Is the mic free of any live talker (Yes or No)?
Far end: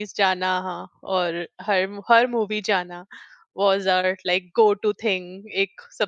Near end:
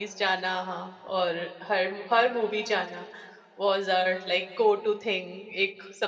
Yes